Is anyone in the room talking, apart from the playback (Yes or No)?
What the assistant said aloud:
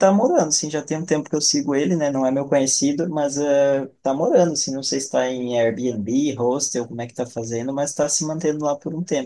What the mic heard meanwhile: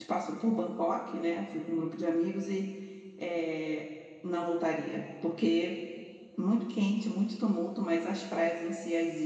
Yes